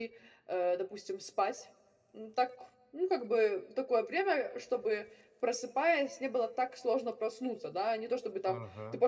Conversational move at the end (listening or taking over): listening